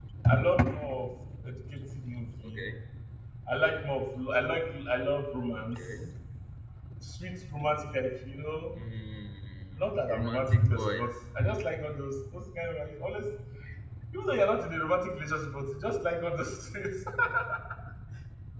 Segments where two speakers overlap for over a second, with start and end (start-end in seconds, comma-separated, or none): 9.8-11.1